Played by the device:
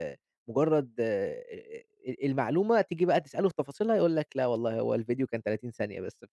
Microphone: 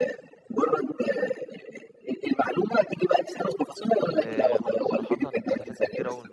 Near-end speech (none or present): present